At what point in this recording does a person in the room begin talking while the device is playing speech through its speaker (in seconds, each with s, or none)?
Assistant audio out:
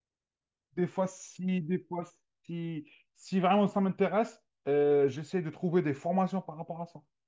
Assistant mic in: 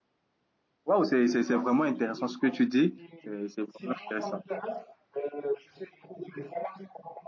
0.8 s